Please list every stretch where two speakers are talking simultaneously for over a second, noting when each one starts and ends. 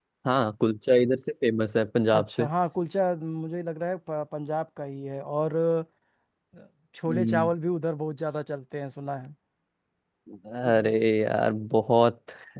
none

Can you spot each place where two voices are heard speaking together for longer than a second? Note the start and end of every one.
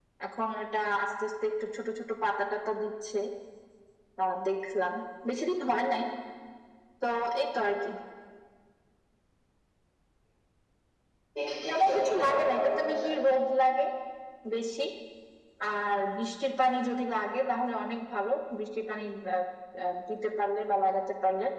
11.7-13.1

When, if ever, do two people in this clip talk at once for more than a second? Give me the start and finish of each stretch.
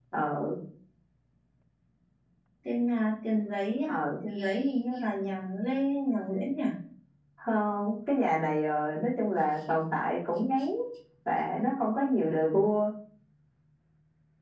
none

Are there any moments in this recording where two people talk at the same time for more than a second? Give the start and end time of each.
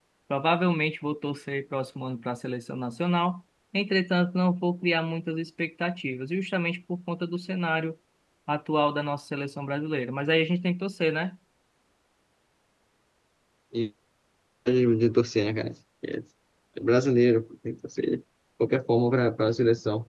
none

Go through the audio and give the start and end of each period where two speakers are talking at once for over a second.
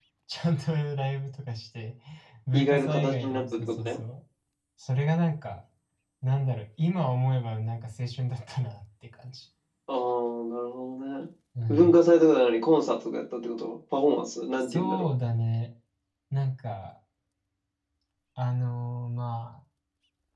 2.5-4.0

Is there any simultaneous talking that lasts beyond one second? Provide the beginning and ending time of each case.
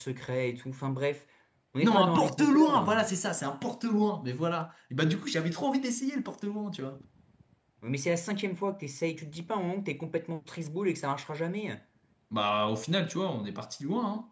1.8-3.0

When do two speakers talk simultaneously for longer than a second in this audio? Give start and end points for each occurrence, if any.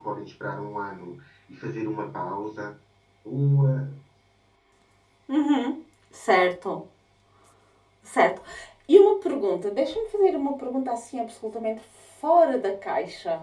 none

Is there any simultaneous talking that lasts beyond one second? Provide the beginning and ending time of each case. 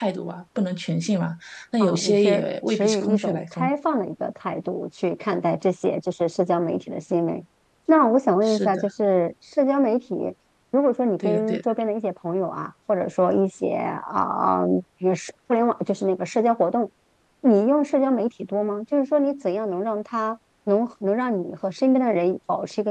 1.8-3.7

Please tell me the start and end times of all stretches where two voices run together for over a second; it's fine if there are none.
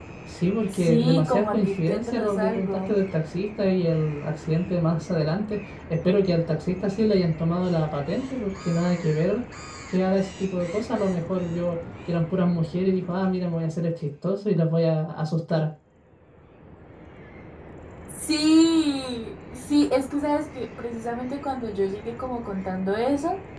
0.7-3.0

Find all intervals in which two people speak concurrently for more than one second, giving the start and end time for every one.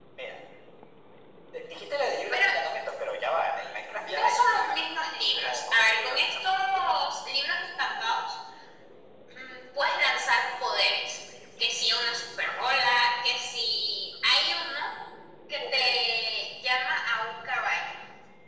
4.1-6.8

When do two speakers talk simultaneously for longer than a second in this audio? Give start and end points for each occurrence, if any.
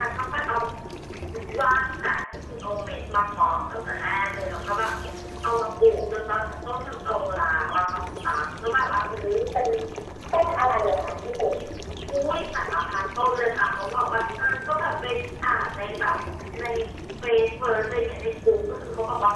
none

